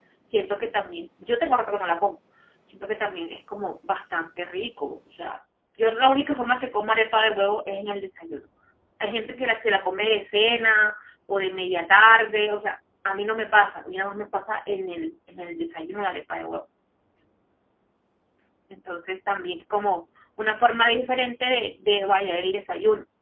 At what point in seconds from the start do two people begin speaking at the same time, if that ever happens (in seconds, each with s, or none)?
none